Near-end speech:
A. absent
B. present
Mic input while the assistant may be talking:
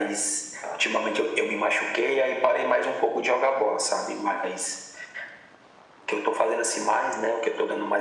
A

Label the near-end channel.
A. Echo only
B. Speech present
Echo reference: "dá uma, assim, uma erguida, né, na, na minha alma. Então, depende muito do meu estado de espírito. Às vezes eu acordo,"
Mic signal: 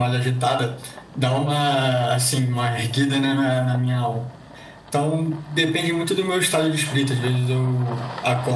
A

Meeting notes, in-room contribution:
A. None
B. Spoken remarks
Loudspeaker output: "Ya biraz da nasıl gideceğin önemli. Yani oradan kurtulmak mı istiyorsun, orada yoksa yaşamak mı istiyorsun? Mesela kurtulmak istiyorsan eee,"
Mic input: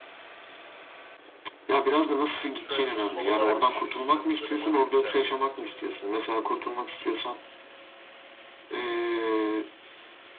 B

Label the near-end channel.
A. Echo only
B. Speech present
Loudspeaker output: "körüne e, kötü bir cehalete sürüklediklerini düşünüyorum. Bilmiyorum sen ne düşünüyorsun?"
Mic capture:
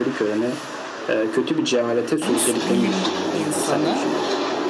B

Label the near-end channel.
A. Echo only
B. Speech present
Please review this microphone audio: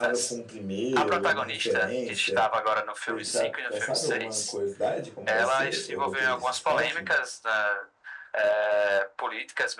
B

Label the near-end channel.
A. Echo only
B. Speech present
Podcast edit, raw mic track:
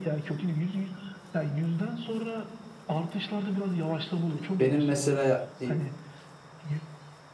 B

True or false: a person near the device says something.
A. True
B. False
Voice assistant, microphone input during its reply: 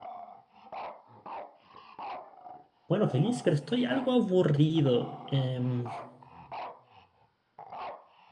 A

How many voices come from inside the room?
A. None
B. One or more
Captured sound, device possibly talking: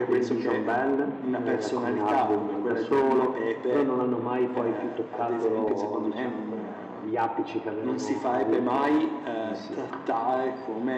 A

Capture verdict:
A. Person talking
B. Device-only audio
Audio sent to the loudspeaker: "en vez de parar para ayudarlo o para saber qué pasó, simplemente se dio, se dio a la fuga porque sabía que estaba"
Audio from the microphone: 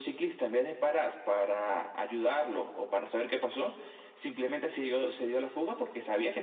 B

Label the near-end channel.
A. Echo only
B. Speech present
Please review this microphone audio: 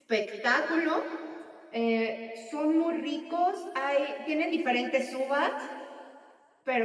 B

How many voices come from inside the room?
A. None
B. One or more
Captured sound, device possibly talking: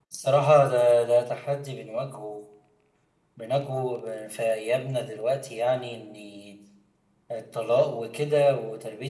A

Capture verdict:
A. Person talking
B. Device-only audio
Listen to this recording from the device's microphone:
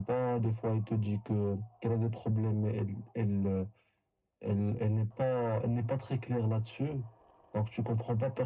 B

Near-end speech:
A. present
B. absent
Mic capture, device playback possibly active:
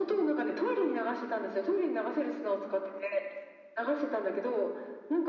B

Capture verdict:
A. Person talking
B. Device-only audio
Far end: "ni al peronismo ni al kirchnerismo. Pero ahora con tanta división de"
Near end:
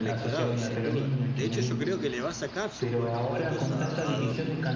A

